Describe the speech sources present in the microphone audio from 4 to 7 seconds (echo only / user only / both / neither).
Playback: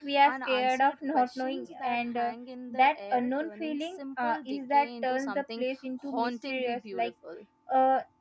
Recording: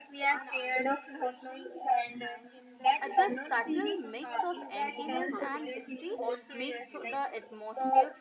both